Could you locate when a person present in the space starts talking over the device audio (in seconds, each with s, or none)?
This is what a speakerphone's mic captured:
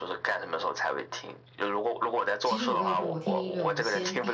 2.4 s